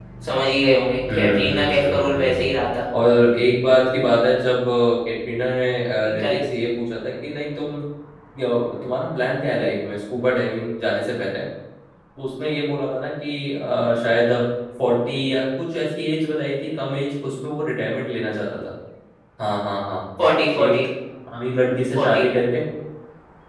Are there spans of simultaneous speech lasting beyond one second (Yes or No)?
Yes